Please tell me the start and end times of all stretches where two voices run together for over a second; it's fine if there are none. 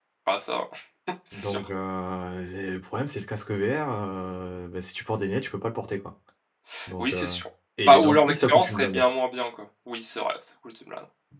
7.8-9.0

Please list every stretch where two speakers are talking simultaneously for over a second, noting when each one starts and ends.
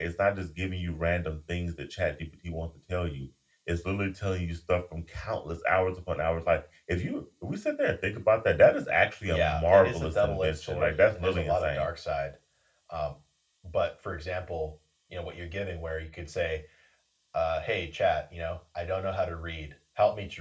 9.3-11.9

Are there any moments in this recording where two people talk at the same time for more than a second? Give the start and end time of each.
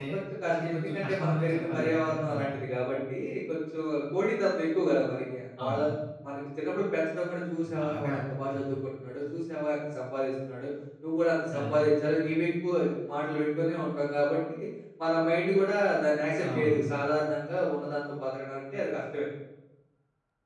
0.6-2.4

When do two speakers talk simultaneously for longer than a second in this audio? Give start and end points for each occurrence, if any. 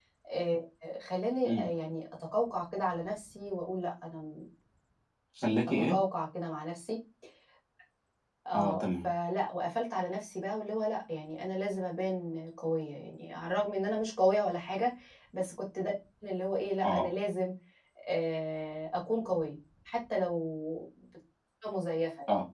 none

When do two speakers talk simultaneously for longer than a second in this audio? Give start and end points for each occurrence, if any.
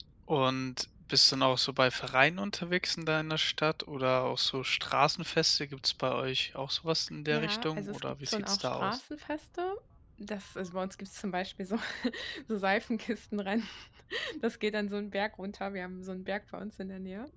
7.3-9.0

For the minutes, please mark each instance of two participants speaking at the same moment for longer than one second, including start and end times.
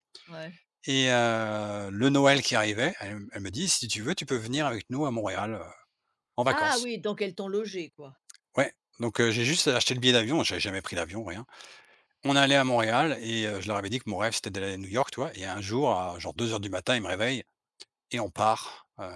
none

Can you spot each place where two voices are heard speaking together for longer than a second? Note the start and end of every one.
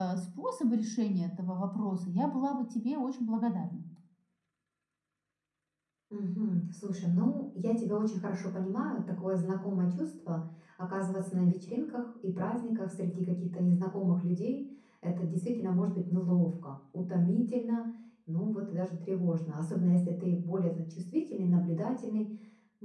none

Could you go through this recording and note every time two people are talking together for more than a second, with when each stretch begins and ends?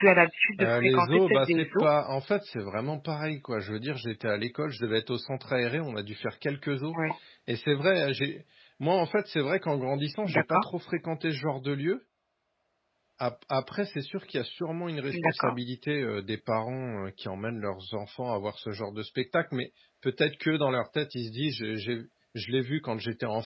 0.6-1.9

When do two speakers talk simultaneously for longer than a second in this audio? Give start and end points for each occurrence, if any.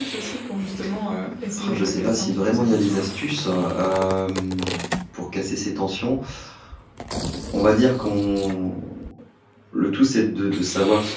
1.6-3.1

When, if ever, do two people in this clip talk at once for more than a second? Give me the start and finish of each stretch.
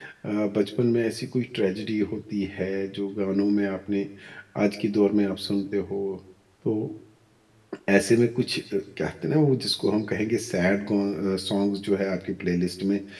none

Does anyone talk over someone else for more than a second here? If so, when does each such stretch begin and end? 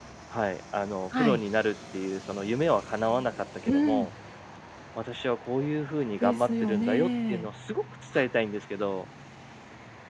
6.2-7.5

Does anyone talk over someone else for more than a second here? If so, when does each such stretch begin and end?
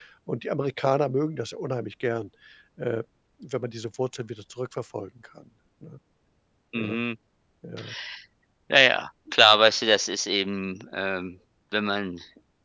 none

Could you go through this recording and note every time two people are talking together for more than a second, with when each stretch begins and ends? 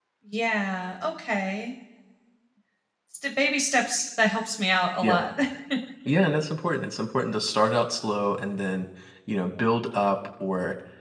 none

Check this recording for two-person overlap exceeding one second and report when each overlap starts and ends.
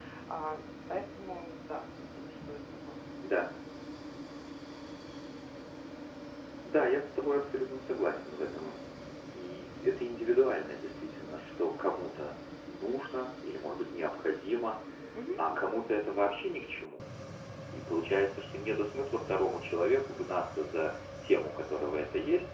none

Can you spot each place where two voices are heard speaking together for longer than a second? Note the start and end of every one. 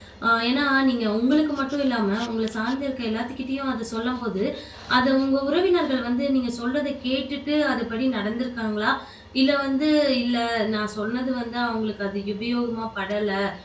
none

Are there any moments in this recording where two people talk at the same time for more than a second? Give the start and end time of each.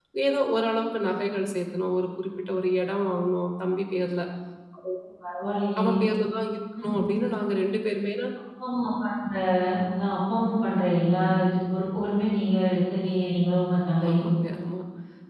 none

